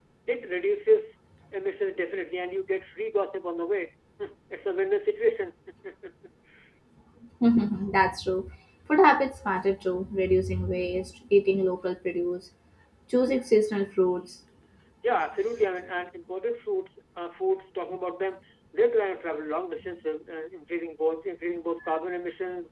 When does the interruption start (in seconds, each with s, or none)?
none